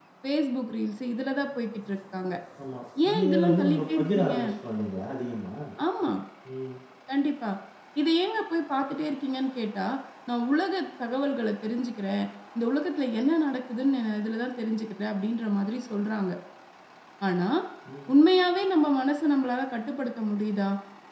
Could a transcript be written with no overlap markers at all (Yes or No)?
No